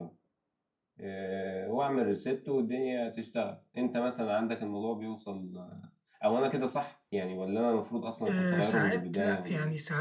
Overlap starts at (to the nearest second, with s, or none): 8 s